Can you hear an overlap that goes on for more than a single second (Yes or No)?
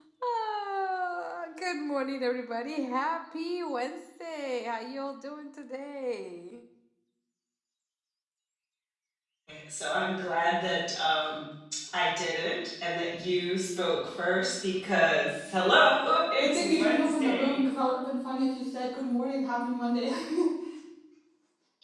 Yes